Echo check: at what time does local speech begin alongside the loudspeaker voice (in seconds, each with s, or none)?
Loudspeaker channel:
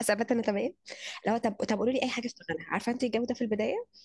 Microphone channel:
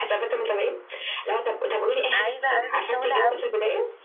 2.1 s